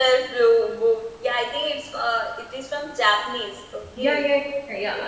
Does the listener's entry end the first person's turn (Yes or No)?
Yes